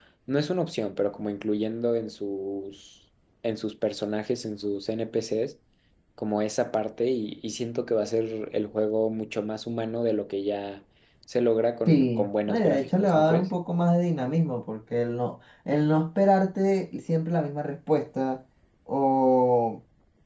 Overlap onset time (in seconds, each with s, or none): 11.9 s